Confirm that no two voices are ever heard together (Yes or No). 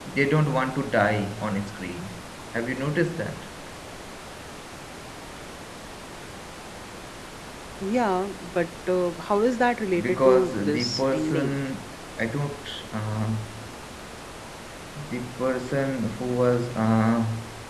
No